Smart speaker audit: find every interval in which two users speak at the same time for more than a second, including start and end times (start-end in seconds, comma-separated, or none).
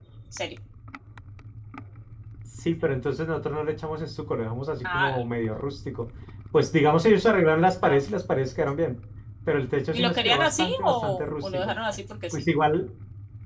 9.9-11.7